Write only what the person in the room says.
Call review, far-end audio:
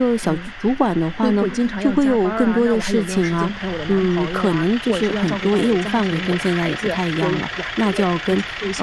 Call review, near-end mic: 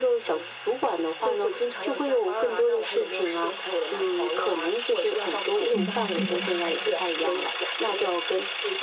嗯，理

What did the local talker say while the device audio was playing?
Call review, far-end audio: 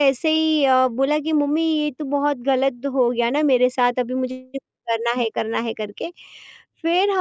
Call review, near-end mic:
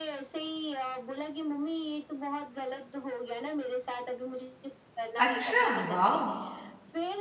अच्छा, वॉव!

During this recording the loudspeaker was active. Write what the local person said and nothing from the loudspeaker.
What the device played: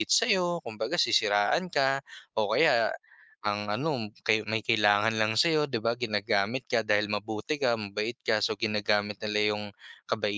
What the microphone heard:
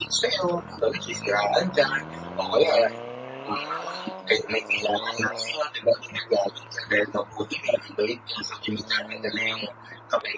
none

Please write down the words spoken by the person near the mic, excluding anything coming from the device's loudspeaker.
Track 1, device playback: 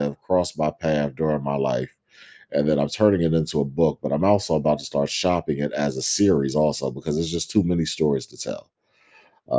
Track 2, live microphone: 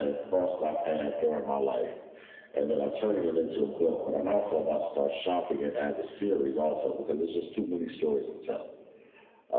none

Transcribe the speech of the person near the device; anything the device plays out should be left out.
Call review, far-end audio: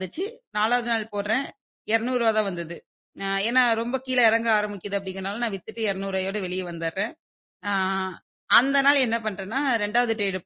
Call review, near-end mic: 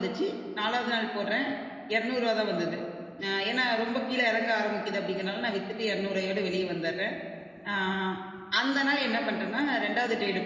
none

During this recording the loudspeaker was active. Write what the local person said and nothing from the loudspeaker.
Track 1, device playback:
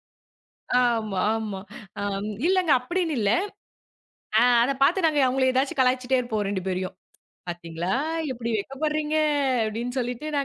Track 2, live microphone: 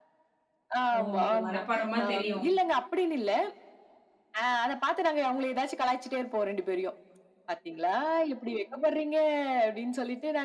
ஓ! உங்களுக்கு மனப்பாடமா தெரியும்.

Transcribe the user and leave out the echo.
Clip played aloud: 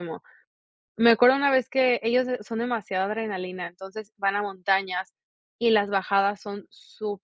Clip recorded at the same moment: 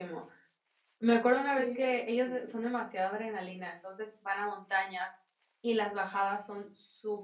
qué divertido.

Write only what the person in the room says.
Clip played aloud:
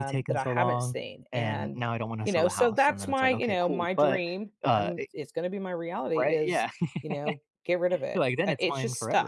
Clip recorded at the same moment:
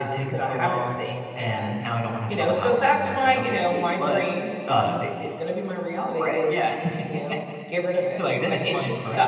none

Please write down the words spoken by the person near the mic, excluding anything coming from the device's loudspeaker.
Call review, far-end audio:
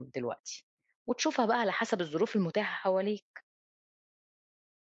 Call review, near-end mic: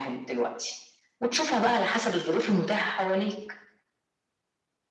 none

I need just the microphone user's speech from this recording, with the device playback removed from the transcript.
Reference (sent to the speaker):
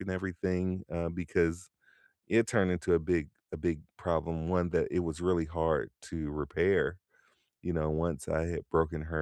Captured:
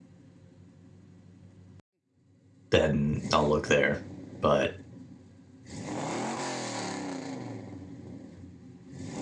then I'll look there. But

